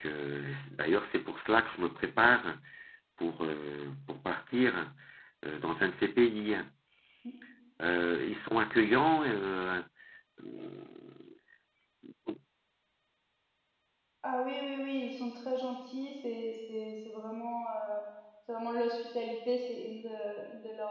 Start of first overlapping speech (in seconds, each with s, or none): none